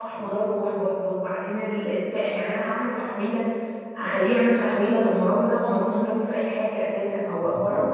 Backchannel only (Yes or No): No